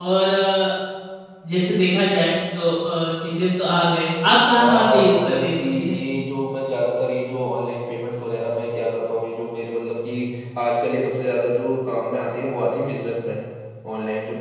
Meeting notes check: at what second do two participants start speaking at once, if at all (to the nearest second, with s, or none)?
5 s